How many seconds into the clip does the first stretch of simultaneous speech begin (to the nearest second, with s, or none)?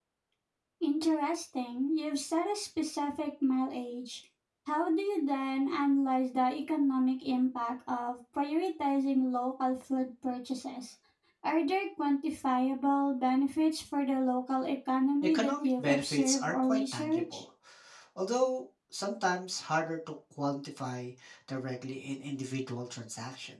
15 s